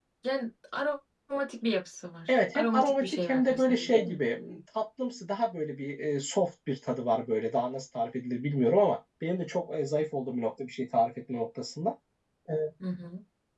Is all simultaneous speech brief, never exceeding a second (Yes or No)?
No